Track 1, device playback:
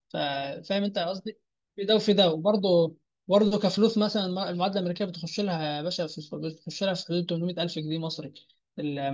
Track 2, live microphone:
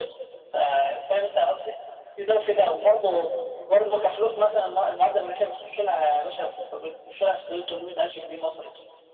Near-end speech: none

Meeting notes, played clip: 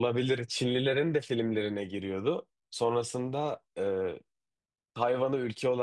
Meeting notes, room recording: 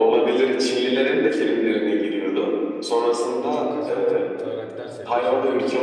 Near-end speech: present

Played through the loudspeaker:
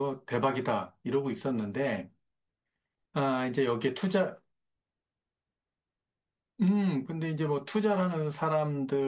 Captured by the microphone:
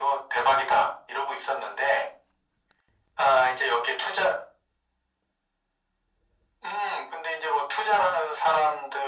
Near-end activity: none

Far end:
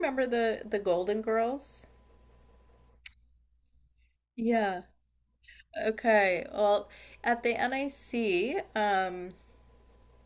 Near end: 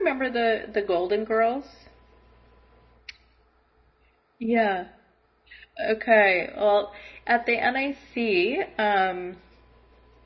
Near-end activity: none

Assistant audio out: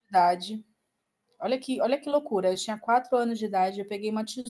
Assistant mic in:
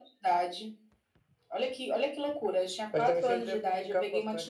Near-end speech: present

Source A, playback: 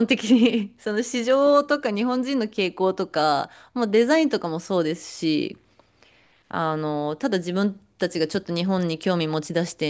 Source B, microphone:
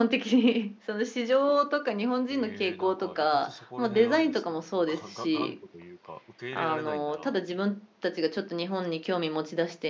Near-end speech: present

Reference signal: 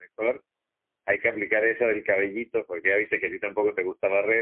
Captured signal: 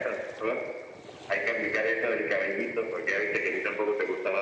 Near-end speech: none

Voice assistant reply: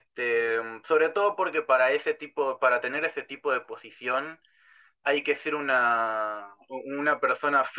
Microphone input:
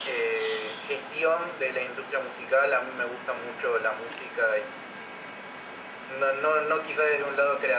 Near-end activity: present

